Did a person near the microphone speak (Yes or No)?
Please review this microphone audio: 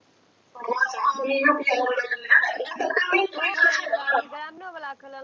Yes